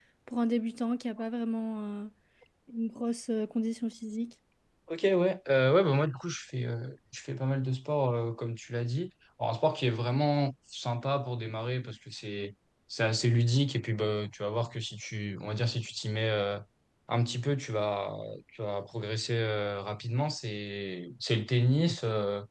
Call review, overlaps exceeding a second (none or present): none